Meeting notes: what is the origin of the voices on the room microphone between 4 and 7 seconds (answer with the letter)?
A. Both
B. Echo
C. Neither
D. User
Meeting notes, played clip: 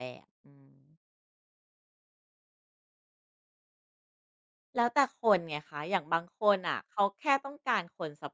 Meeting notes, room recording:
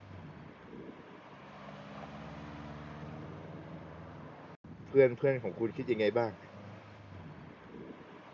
D